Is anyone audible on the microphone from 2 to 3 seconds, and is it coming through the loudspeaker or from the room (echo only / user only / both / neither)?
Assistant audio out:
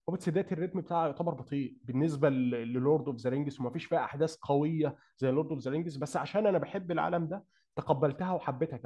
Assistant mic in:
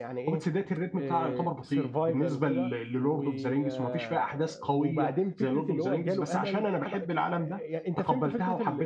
both